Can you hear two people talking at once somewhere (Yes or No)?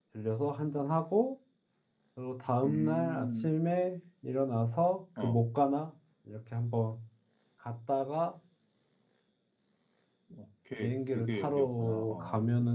Yes